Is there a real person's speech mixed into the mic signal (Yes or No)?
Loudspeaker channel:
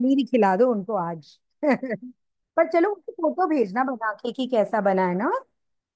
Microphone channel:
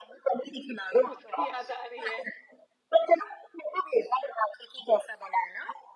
Yes